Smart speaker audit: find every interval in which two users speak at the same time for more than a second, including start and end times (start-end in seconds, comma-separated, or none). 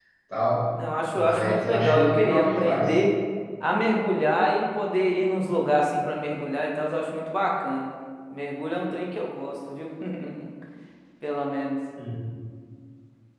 1.1-3.0